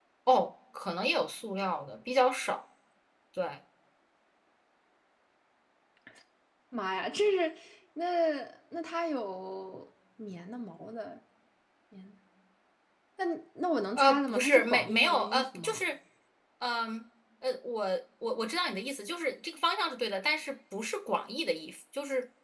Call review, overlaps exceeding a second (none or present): present